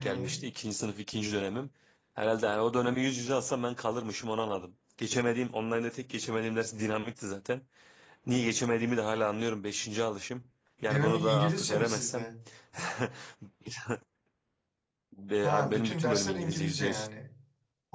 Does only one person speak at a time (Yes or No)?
No